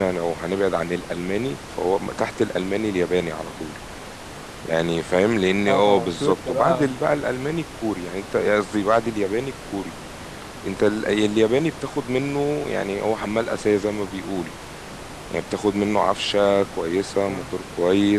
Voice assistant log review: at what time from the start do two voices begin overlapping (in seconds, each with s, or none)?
5.7 s